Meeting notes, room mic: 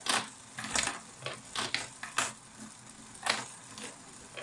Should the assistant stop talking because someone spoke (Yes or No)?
No